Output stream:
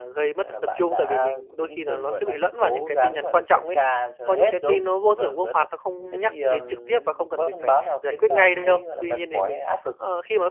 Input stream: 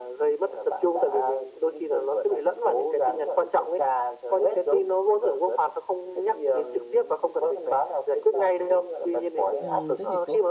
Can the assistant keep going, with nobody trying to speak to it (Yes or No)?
No